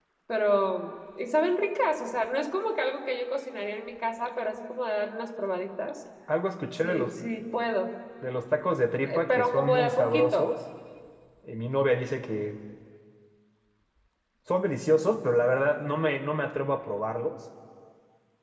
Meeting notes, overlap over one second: present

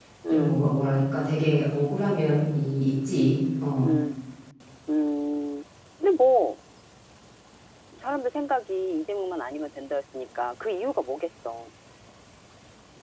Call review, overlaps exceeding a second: none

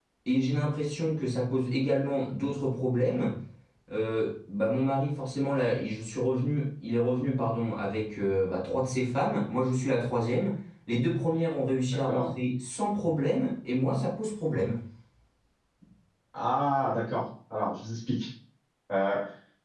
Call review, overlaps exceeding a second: none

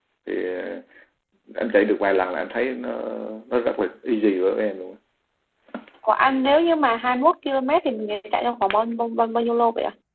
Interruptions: none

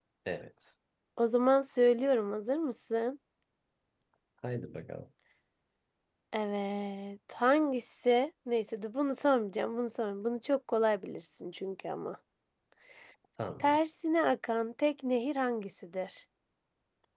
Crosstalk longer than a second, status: none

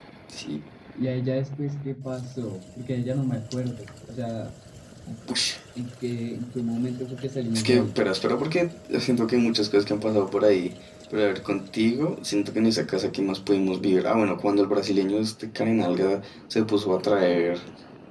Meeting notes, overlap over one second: none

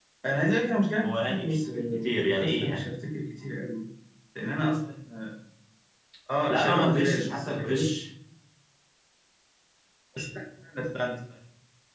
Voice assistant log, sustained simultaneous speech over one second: present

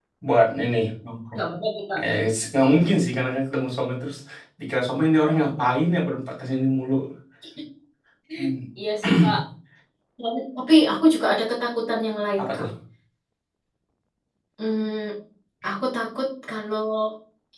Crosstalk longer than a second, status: none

